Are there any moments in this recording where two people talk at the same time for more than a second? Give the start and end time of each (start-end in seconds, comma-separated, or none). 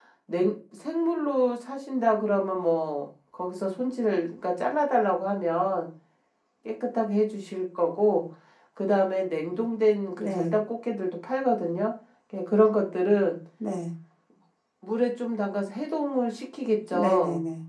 none